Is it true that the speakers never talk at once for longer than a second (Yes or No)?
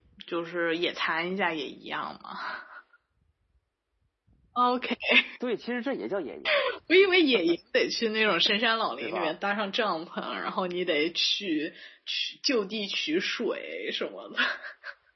Yes